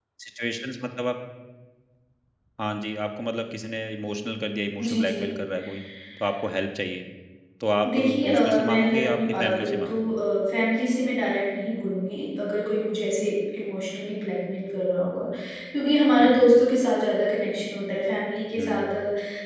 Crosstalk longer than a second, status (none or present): present